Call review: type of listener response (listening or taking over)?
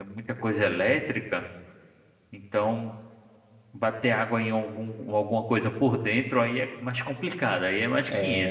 taking over